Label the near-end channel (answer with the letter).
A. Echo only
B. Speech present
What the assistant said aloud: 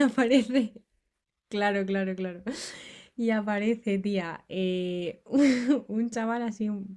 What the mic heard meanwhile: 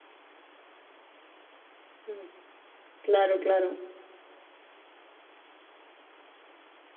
B